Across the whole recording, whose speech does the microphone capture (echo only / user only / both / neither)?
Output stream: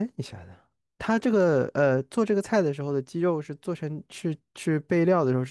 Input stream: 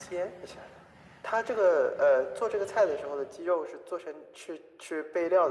echo only